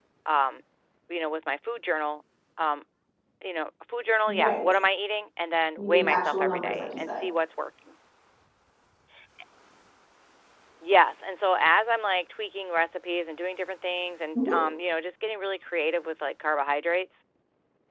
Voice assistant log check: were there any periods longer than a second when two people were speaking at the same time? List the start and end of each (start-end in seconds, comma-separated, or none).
5.8-7.2